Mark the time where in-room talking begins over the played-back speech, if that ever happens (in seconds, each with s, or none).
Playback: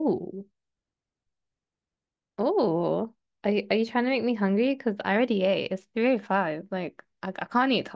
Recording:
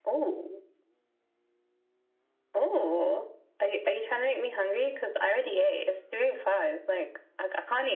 none